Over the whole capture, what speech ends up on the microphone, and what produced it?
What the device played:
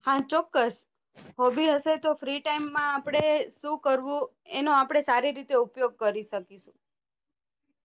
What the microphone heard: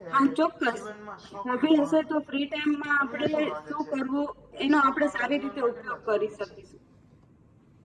both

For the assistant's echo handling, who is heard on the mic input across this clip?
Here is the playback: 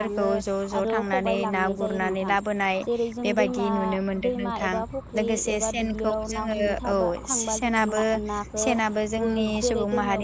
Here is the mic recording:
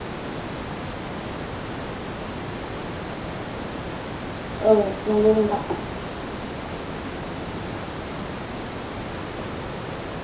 user only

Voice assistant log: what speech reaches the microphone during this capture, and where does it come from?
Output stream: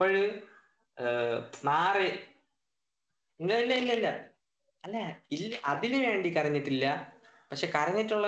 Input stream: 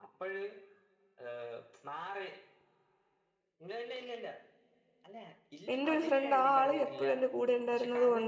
both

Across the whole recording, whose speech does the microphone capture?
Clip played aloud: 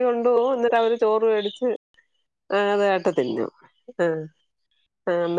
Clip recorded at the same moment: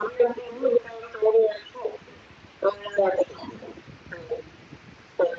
echo only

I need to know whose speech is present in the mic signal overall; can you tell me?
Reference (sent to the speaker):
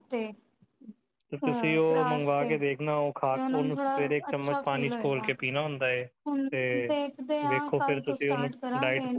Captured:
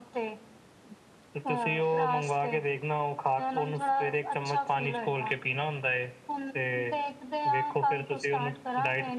echo only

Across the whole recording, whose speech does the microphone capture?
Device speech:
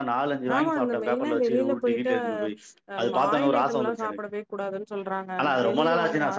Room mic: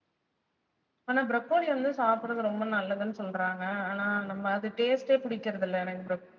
user only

